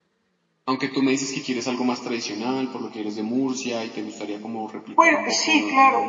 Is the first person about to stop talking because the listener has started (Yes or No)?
Yes